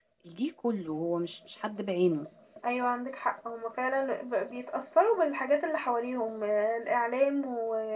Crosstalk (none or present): none